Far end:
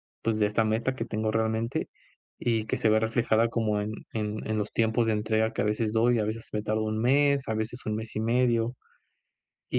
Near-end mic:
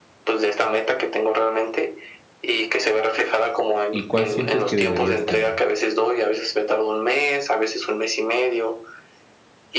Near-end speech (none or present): present